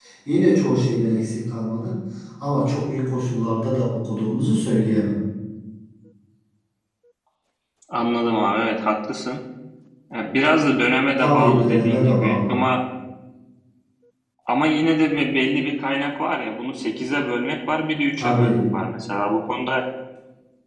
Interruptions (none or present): present